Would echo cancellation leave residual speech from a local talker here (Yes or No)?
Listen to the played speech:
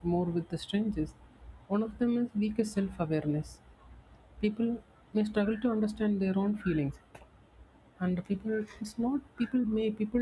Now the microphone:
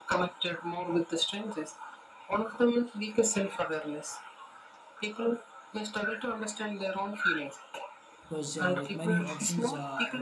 Yes